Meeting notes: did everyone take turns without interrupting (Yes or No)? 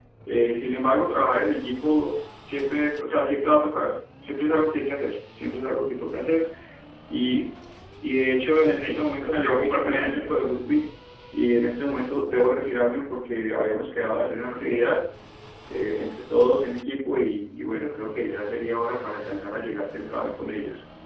No